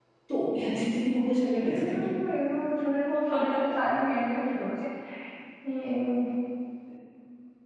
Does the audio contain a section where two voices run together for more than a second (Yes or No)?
No